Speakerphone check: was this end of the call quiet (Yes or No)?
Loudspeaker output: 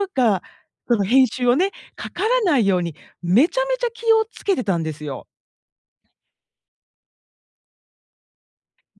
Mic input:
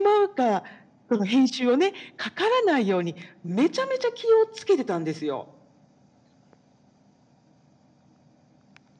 Yes